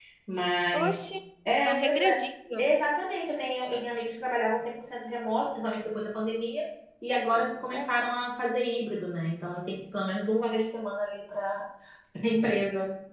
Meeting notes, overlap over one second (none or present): none